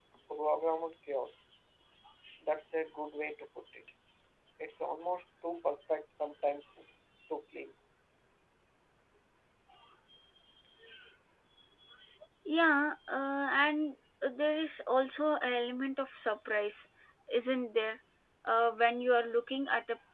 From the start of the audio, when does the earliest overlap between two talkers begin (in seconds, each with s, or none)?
none